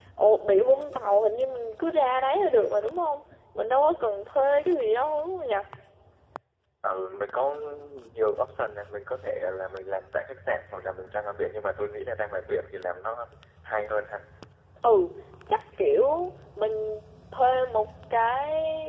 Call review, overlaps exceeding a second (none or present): none